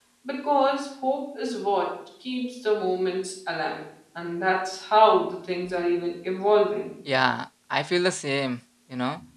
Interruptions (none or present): none